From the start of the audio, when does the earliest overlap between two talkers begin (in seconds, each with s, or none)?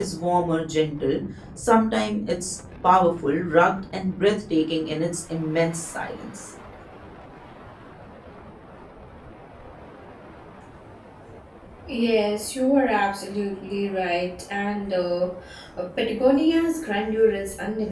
none